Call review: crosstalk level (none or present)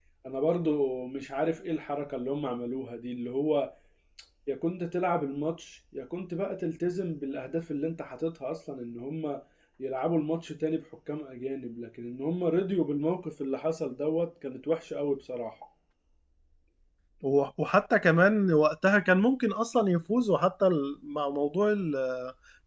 none